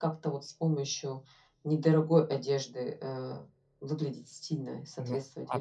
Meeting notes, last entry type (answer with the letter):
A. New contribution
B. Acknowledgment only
A